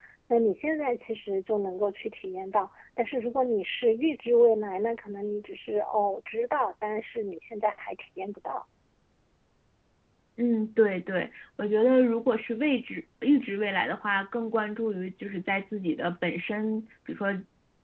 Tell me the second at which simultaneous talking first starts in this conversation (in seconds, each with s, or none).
none